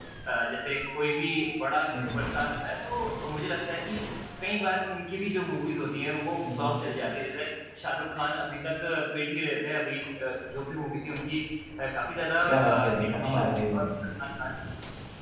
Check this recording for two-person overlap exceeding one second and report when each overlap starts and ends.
12.5-13.8

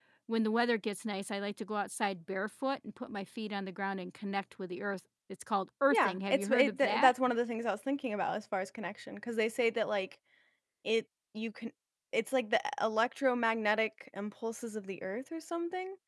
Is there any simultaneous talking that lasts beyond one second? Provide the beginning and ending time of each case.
5.9-7.1

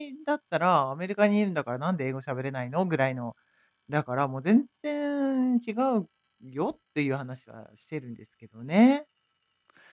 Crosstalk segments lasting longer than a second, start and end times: none

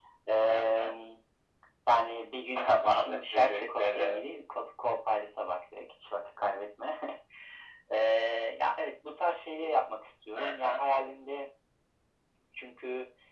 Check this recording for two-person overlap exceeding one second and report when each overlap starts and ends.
2.6-4.2

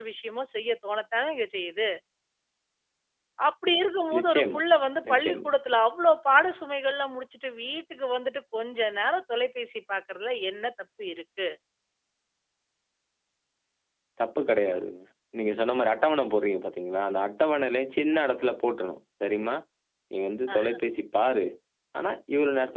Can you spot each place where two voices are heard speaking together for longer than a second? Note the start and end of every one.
none

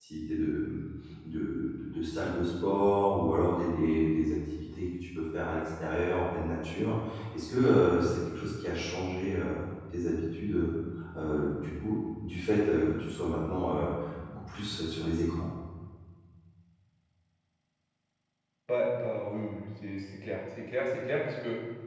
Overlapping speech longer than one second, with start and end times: none

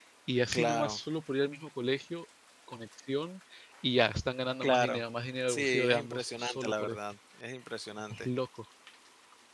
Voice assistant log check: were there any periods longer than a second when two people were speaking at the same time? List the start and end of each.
5.5-7.0

